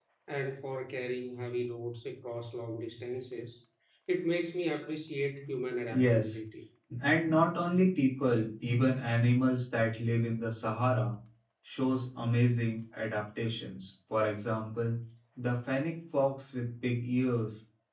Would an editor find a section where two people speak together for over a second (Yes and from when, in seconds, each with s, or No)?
No